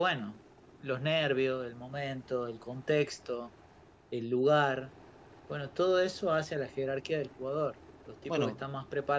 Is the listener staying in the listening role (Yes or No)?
Yes